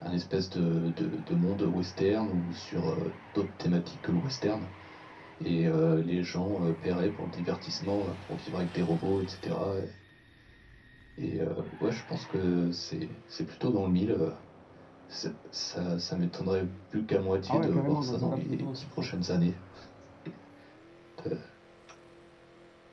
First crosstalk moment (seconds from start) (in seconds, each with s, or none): 17.5 s